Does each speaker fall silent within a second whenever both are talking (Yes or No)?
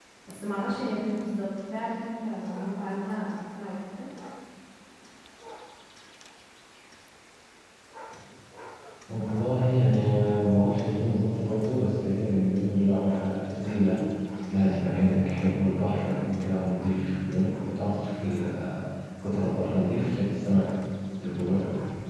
Yes